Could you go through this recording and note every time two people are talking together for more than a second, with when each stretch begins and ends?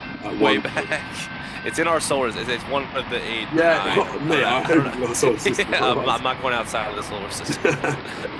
3.6-6.2

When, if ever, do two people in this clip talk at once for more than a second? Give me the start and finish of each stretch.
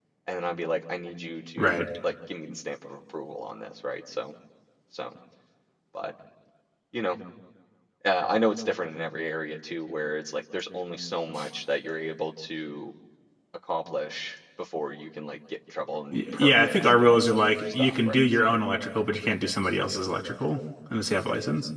16.1-18.6

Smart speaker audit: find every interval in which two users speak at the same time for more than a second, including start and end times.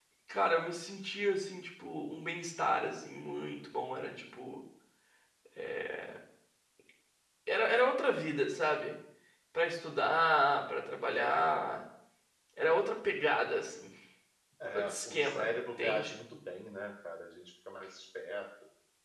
14.7-16.1

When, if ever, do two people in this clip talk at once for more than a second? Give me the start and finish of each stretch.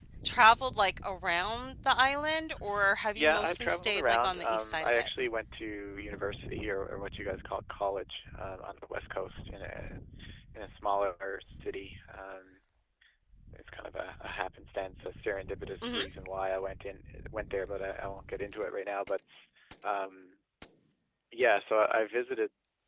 3.1-5.1

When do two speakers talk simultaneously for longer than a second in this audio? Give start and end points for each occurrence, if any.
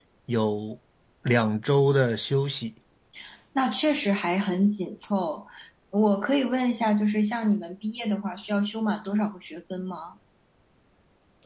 none

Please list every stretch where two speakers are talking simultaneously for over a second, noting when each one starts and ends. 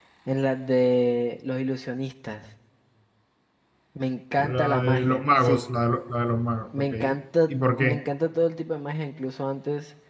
4.4-5.6

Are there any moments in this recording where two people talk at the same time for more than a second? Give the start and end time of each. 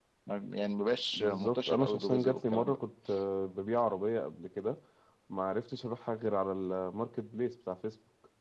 1.1-2.8

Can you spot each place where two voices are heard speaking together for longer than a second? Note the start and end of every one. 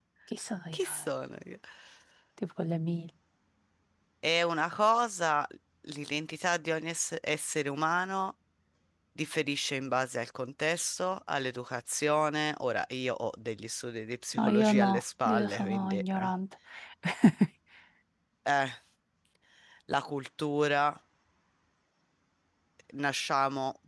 14.4-16.3

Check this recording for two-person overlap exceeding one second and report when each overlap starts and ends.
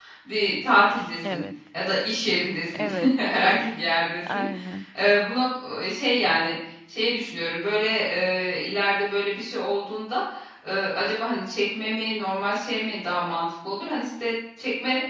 none

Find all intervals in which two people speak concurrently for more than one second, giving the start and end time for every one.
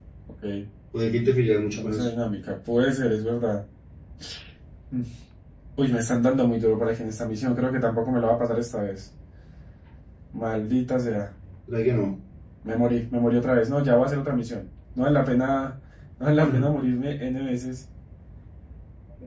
none

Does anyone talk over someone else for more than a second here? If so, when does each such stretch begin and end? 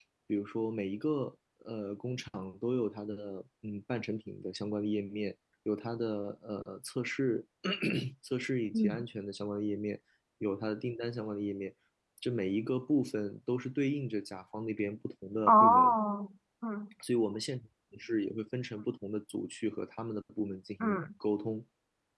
none

